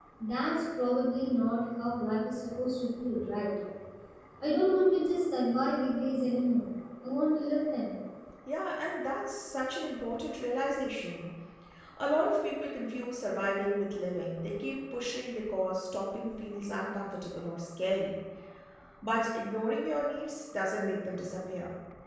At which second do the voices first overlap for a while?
none

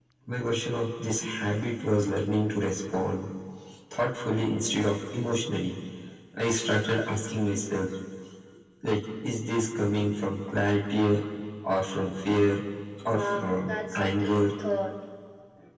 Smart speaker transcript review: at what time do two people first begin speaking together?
13.0 s

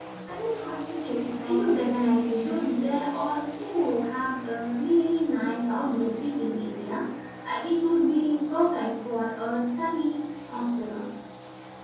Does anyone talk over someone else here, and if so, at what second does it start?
1.4 s

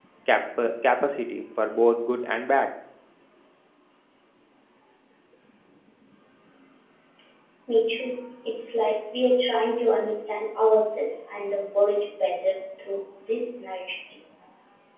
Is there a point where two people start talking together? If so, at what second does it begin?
none

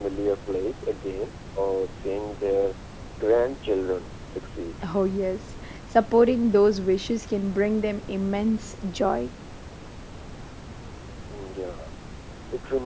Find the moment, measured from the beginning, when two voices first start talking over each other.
none

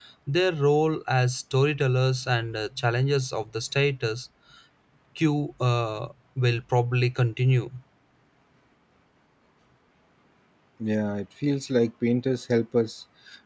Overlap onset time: none

